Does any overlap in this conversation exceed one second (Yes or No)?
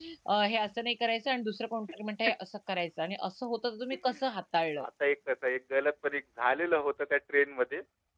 No